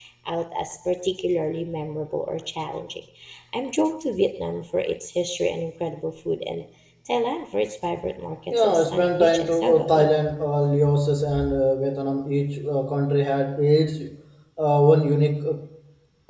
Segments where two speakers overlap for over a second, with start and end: 8.6-10.1

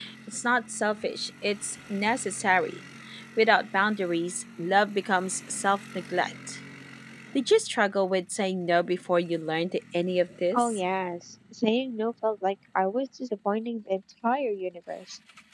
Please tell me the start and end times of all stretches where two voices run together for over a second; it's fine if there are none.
none

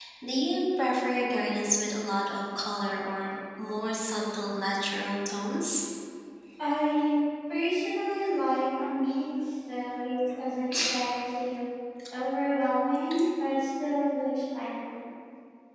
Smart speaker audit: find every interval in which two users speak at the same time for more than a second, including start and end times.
none

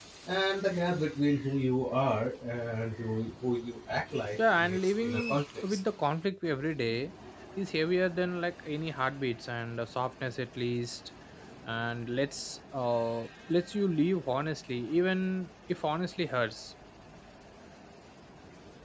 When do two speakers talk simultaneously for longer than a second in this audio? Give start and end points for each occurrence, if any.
4.4-5.8

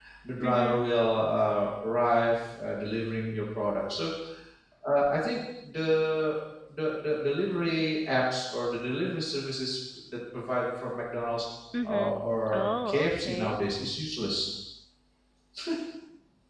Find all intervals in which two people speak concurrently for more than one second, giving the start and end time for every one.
11.8-13.6

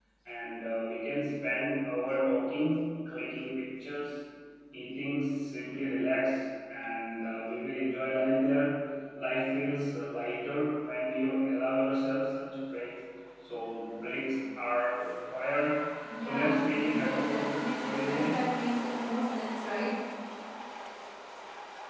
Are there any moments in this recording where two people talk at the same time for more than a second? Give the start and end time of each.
16.2-18.4

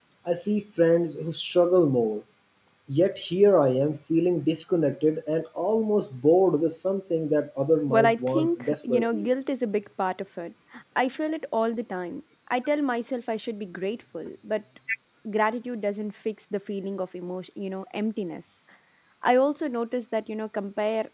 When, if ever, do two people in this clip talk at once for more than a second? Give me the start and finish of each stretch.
7.9-9.3

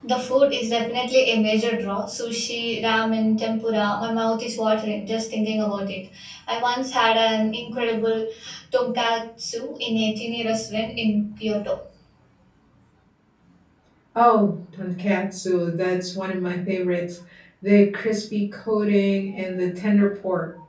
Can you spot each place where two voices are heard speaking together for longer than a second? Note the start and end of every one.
none

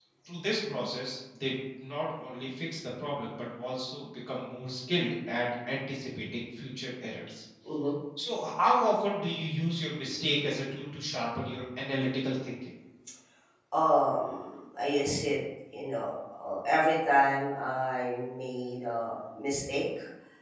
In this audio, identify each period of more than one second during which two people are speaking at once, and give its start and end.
none

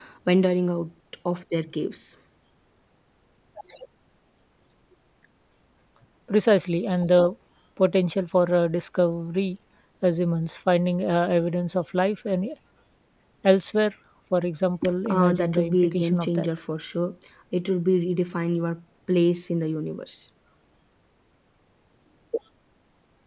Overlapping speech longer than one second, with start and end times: 15.1-16.5

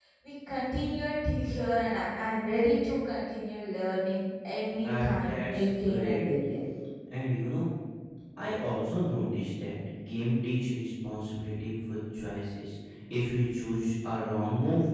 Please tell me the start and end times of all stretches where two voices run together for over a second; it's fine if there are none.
4.8-6.2

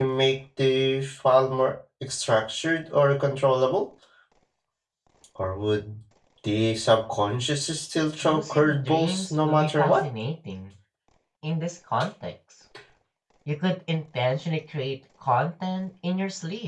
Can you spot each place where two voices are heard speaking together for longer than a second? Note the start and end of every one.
8.2-10.1

